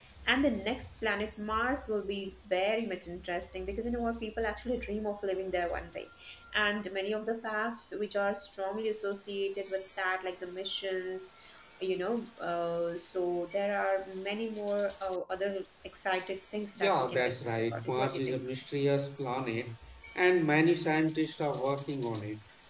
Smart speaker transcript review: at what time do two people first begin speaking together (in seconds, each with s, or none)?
16.8 s